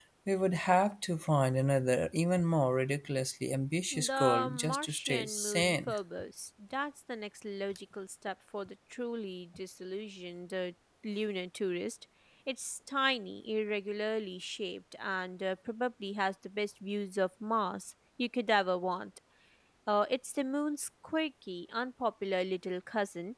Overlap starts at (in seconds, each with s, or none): 3.9 s